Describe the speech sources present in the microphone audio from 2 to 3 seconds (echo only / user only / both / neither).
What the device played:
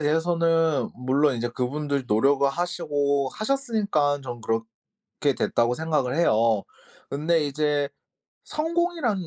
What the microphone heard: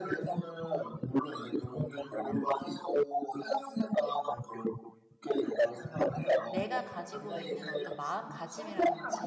echo only